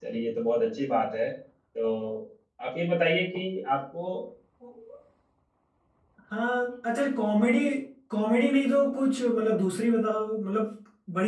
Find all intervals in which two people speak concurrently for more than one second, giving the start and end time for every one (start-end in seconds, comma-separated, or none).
none